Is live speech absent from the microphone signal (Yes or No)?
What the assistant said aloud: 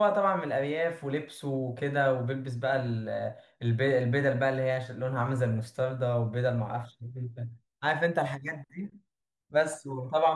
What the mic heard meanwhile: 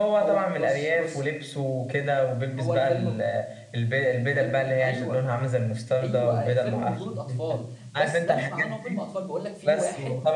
No